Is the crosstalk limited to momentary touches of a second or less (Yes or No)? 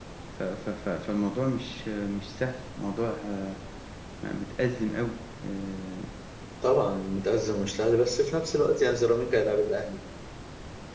Yes